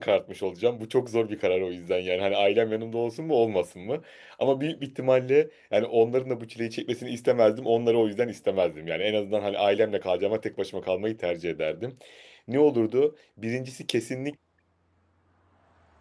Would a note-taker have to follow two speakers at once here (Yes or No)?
No